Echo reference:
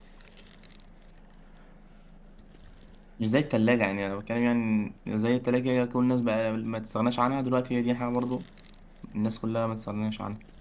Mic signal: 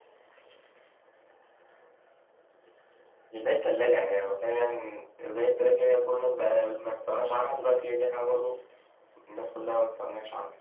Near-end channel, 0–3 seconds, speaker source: neither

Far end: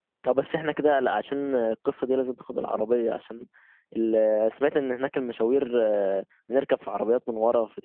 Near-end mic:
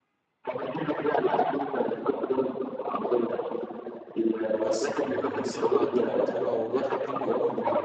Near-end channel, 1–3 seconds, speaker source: echo only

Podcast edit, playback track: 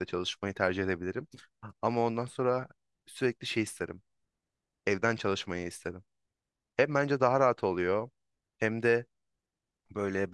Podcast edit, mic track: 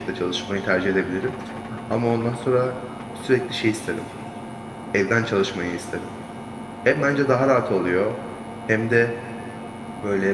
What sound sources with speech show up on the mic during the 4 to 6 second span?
echo only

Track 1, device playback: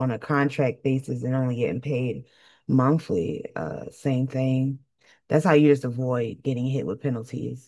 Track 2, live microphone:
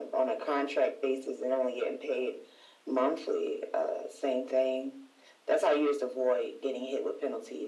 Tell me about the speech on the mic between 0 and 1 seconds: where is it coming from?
echo only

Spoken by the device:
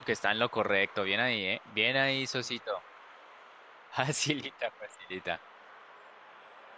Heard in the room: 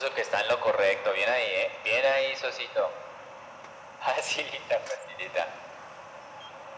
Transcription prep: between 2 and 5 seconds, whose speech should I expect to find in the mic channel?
echo only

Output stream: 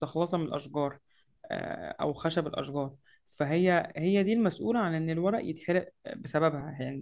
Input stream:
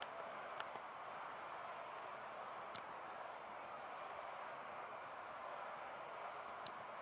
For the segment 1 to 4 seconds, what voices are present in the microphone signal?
neither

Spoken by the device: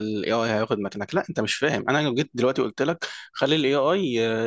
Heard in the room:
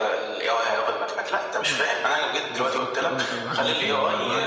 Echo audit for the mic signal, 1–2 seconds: both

